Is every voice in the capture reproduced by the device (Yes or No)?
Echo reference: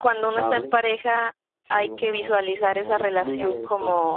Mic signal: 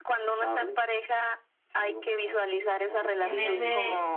No